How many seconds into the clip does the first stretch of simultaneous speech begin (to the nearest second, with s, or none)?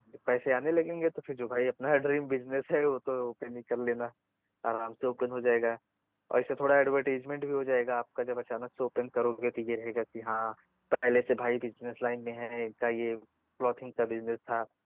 none